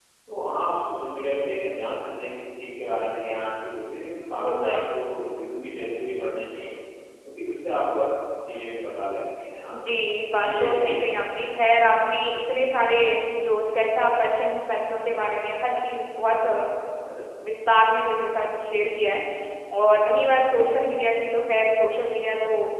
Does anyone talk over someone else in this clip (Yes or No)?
Yes